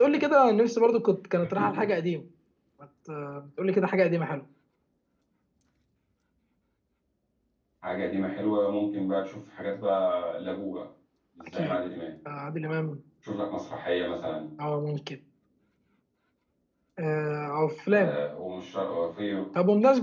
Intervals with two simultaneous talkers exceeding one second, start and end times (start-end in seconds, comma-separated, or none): none